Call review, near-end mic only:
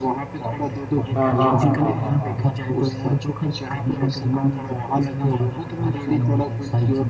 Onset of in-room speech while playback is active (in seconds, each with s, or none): 1.1 s